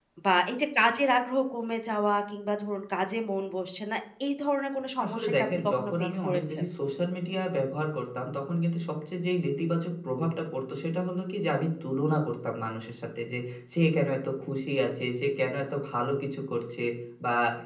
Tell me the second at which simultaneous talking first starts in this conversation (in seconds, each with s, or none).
5.0 s